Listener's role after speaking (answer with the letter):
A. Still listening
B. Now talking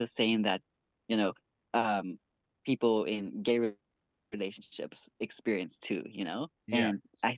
A